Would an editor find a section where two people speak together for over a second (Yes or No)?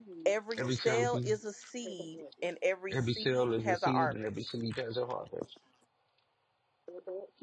Yes